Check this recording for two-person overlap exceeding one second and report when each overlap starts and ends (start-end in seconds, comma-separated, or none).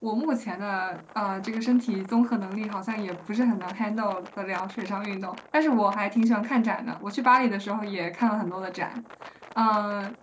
none